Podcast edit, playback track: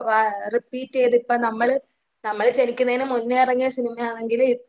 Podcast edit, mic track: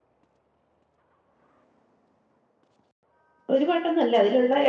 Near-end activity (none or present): present